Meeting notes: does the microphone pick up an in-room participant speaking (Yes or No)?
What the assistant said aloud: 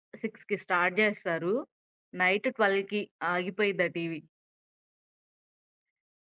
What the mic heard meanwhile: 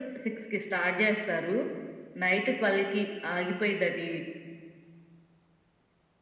No